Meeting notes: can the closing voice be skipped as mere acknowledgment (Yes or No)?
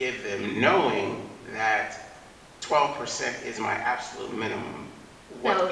No